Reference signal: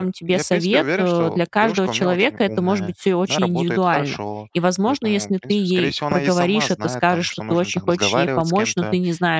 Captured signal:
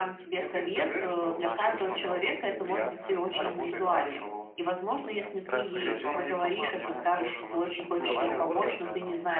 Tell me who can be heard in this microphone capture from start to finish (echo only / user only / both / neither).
both